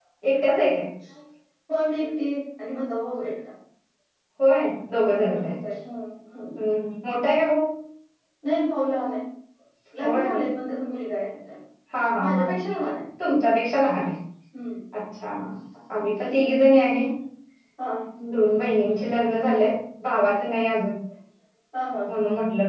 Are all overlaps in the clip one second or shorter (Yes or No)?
Yes